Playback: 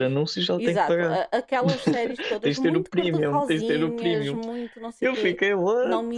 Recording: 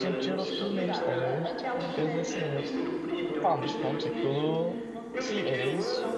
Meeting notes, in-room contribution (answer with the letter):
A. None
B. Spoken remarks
B